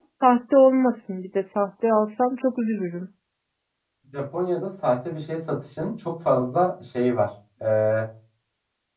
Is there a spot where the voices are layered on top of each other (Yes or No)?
No